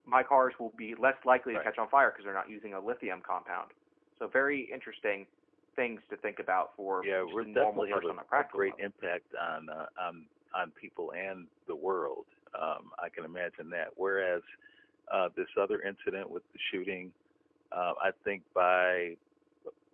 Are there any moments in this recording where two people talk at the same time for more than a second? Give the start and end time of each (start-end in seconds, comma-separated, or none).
7.0-8.9